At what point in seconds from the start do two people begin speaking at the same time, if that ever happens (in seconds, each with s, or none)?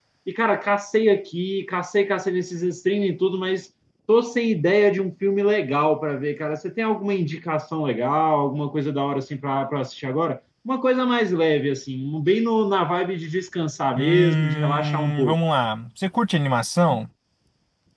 14.0 s